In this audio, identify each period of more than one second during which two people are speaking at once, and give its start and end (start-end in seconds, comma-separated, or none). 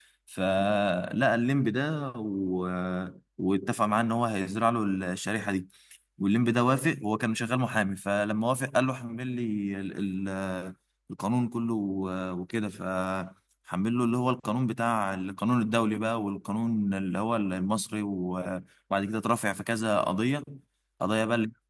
none